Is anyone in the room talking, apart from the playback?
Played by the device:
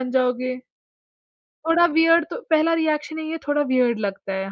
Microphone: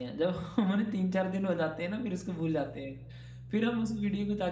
Yes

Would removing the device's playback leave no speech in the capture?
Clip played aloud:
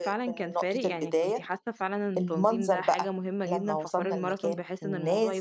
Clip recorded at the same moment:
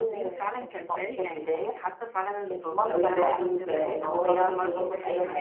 No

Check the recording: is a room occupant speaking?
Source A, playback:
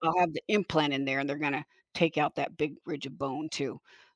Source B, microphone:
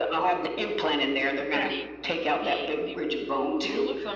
Yes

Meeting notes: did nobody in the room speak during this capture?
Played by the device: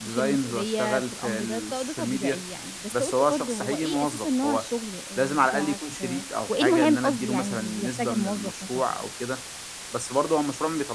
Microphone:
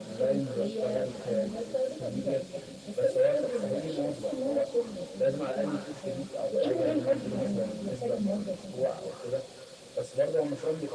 Yes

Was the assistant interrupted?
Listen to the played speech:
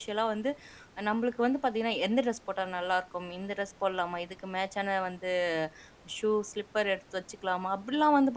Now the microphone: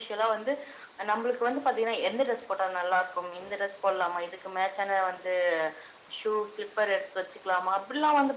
No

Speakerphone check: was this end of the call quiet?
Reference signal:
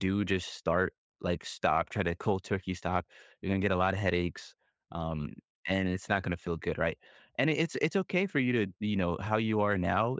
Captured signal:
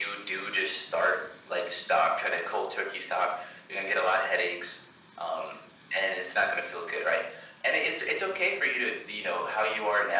Yes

